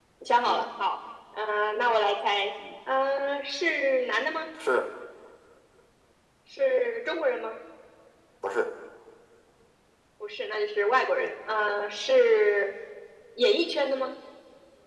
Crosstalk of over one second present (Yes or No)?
No